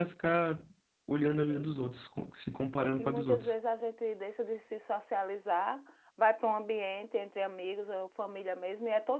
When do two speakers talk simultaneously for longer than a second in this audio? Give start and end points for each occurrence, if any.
none

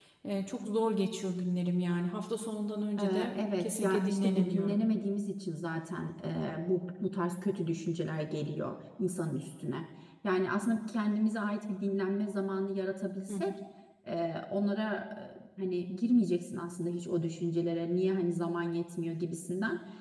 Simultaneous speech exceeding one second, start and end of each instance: 3.0-4.8

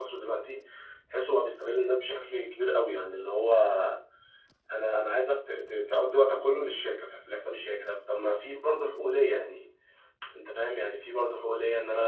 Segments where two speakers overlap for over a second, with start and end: none

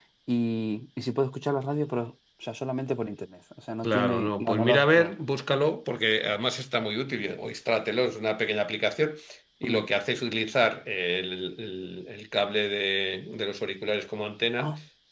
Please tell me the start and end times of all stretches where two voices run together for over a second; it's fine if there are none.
3.8-5.1

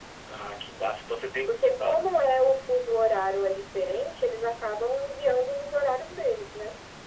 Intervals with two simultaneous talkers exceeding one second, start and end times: none

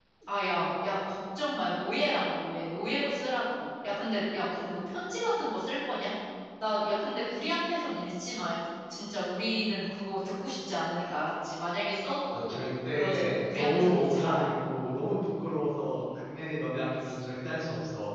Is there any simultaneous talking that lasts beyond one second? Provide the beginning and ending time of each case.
12.3-14.4

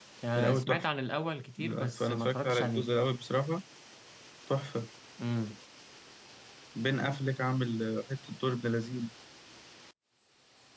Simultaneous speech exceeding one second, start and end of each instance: 1.6-2.9

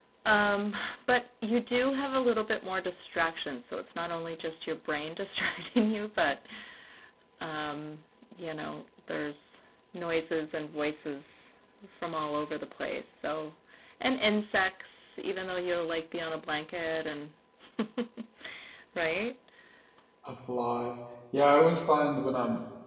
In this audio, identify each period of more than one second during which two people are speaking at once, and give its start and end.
none

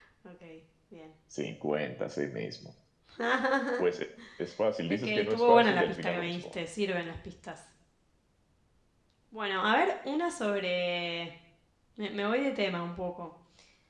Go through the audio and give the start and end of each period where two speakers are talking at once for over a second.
4.9-6.5

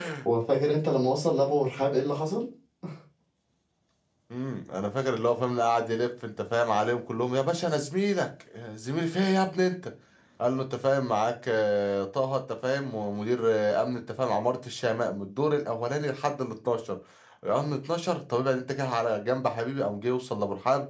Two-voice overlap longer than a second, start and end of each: none

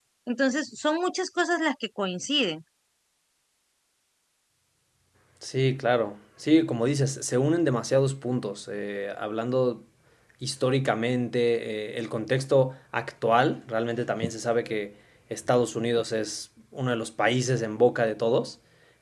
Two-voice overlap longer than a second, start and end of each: none

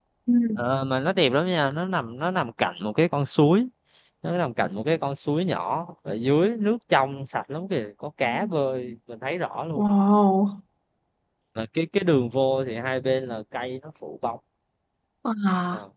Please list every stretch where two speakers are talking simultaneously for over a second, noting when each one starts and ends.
none

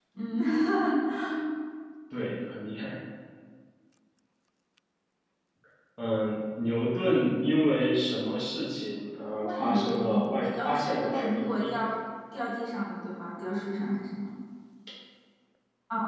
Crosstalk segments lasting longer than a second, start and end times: 9.4-11.7

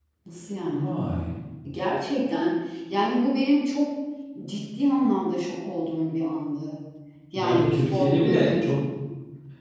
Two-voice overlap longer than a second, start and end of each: 7.3-8.8

